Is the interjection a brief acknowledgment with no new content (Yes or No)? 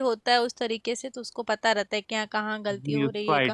No